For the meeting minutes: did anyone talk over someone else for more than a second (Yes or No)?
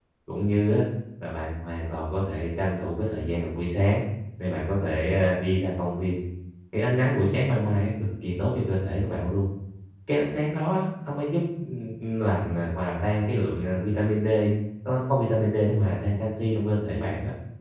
No